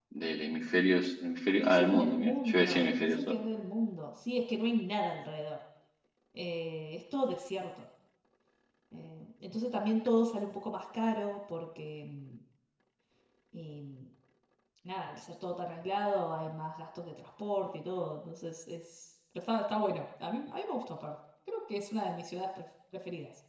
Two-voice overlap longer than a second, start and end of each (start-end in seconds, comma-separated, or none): 1.6-3.4